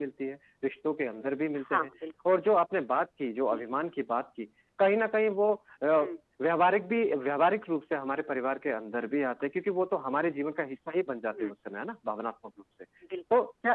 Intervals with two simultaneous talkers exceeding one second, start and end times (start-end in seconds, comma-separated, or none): none